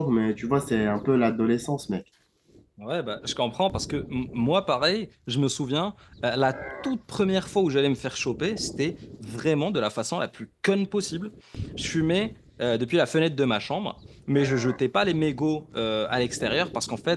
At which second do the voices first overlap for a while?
none

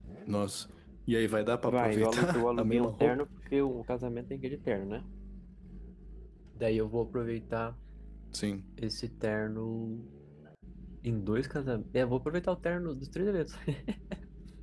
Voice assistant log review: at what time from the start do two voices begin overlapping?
1.7 s

